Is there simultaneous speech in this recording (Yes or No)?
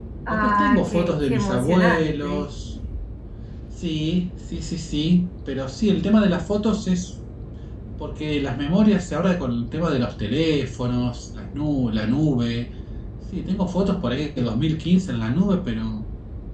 Yes